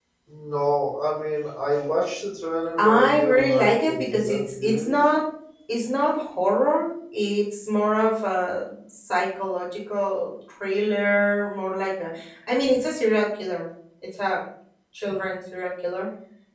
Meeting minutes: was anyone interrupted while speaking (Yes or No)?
Yes